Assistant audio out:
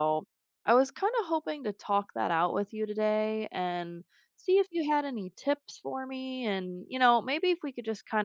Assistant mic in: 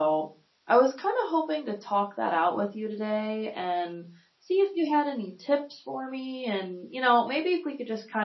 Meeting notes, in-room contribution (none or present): none